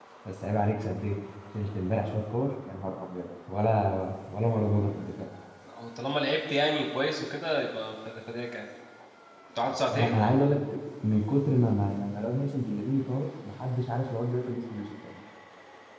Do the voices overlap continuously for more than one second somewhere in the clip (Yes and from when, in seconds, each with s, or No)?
No